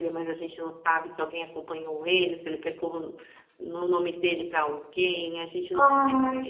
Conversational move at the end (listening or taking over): listening